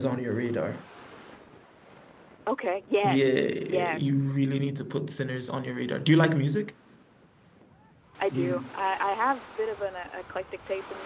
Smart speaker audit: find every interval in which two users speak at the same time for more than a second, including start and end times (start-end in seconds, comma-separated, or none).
3.0-4.2